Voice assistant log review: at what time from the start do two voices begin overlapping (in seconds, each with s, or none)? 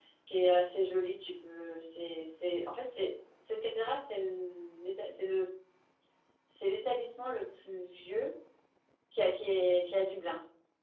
none